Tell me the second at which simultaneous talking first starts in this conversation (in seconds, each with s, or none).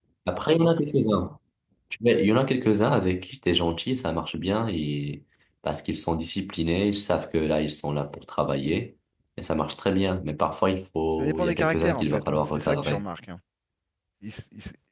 11.2 s